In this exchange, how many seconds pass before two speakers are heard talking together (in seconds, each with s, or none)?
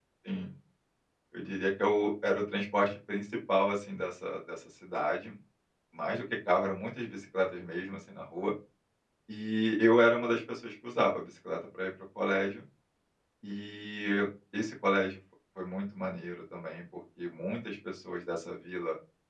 none